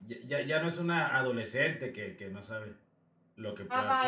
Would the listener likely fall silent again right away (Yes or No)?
No